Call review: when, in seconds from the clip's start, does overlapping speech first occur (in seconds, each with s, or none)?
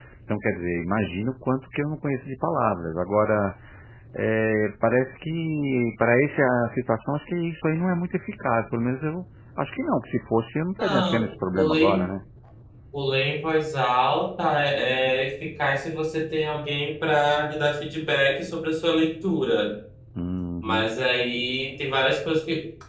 10.8 s